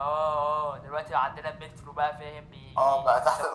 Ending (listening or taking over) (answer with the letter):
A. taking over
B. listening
A